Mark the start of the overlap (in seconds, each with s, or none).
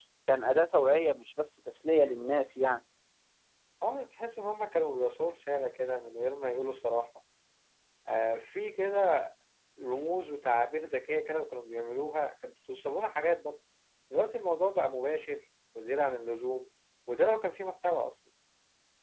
none